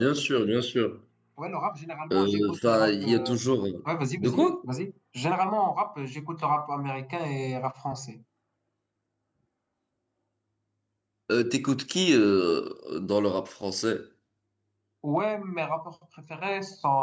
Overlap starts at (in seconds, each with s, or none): 2.1 s